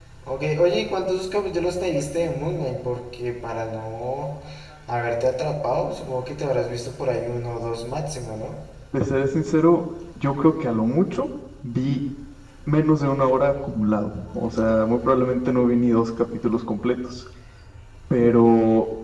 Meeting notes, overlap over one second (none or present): none